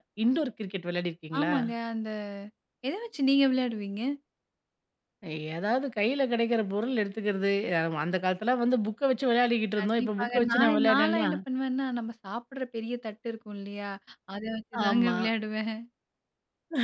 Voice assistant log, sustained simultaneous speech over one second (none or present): present